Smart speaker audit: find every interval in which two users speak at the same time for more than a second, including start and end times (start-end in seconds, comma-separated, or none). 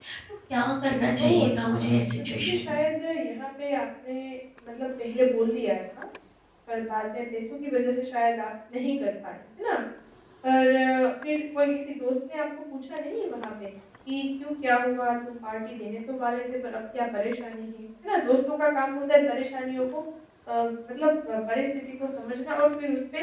1.2-2.8